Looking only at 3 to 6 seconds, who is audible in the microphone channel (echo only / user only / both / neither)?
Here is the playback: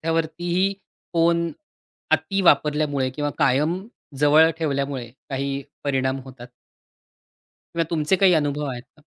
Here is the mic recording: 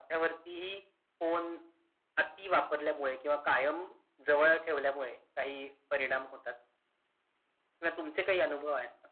echo only